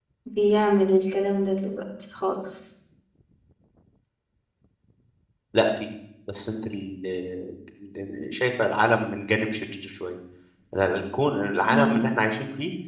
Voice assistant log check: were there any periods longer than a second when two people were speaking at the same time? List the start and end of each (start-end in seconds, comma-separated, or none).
none